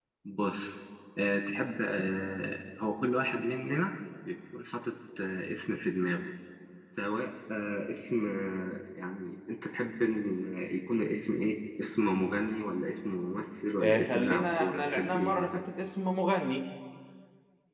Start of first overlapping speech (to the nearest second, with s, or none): 14 s